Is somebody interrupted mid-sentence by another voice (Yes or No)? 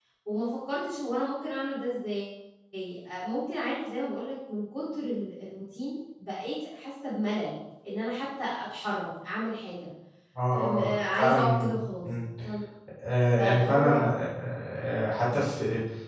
Yes